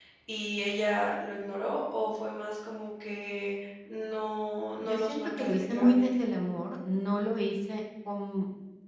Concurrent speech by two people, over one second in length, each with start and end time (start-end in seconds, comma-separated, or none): 4.8-6.1